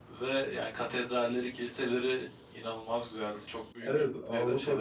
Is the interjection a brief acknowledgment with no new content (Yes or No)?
No